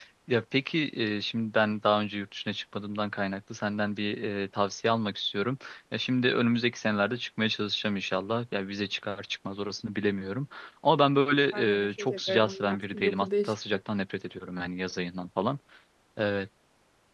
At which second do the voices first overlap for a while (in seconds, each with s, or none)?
11.5 s